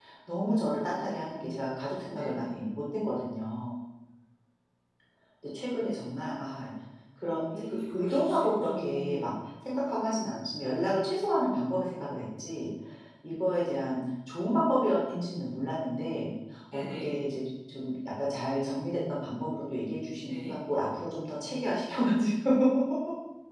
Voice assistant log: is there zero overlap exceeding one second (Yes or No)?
No